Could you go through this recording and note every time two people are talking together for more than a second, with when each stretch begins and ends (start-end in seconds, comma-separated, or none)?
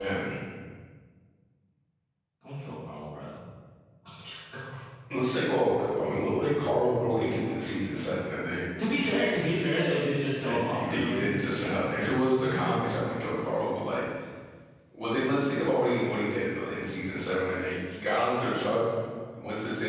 10.4-11.9